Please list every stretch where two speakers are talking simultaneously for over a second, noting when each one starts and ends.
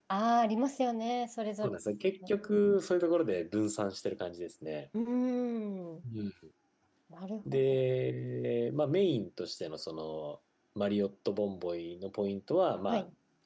none

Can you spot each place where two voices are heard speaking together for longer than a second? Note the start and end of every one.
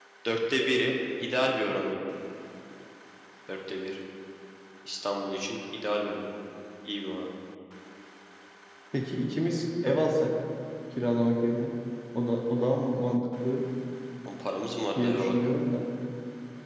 none

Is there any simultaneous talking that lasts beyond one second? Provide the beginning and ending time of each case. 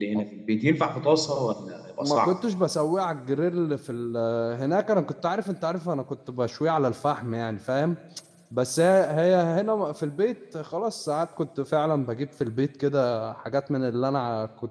none

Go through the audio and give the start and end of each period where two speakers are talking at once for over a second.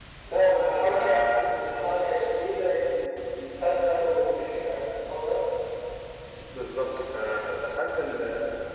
none

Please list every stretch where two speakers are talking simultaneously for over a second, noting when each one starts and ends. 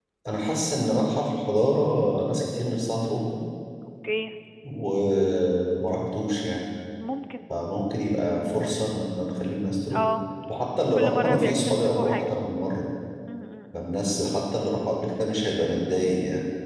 10.9-12.2

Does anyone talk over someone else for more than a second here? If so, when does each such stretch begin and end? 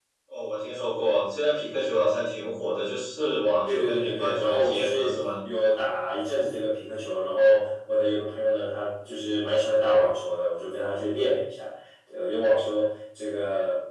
3.6-5.2

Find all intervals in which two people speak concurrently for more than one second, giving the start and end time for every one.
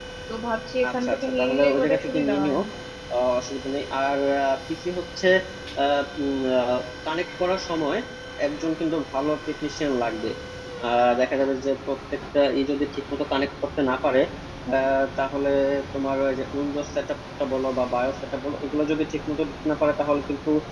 1.0-2.6

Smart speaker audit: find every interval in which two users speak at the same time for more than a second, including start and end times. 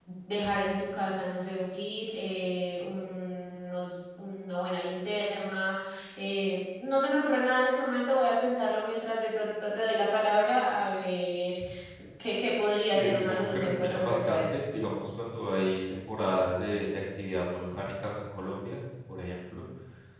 12.8-14.6

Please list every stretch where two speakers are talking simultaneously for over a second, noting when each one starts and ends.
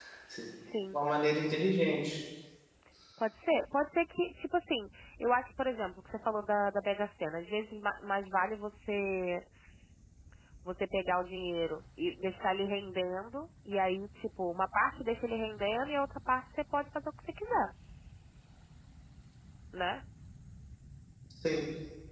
none

